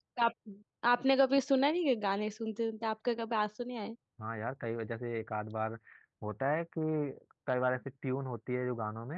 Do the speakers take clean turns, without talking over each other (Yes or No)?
Yes